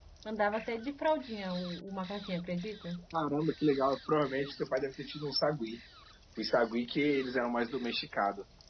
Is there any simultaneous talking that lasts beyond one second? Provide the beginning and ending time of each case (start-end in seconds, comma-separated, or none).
none